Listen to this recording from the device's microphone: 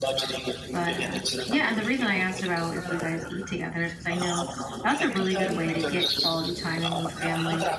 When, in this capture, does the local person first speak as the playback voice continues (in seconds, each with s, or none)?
0.7 s